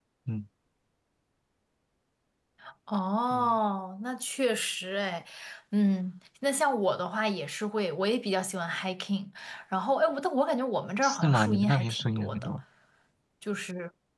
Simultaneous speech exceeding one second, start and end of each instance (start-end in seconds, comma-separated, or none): 11.0-12.5